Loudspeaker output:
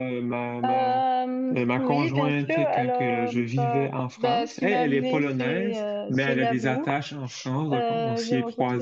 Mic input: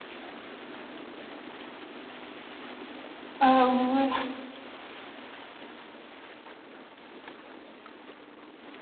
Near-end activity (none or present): present